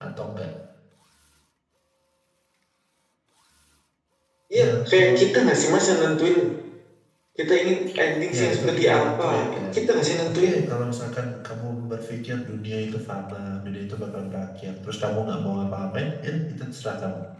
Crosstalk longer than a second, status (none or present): present